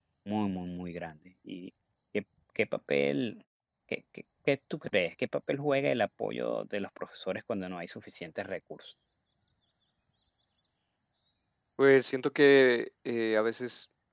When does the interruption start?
none

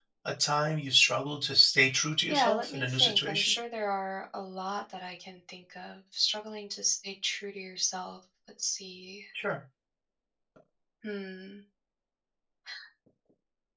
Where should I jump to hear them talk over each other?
2.3 s

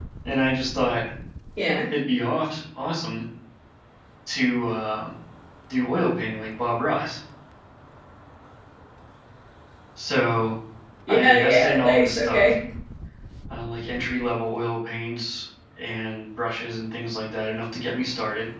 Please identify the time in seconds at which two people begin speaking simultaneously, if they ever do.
11.1 s

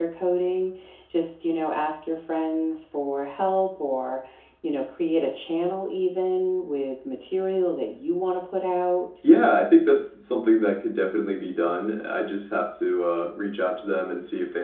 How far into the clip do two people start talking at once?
none

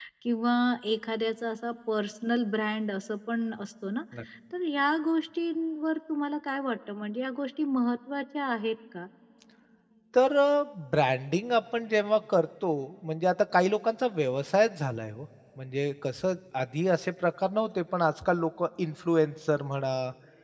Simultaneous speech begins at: none

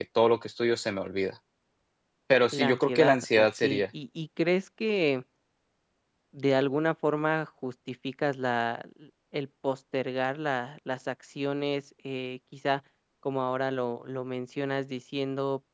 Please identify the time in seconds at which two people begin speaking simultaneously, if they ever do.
2.5 s

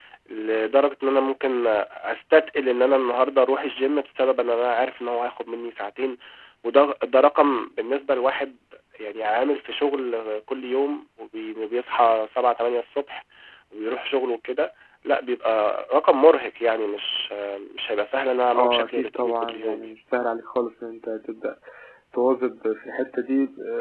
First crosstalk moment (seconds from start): 18.6 s

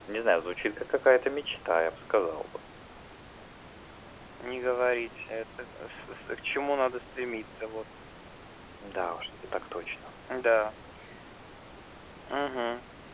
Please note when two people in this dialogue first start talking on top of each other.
none

